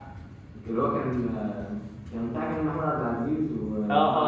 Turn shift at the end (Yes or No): Yes